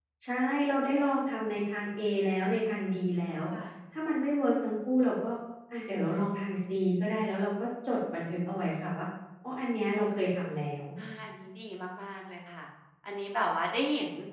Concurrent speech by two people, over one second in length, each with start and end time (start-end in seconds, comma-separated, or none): none